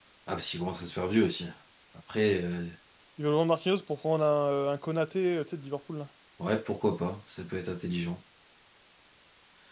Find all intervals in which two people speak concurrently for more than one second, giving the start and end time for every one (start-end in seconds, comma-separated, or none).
none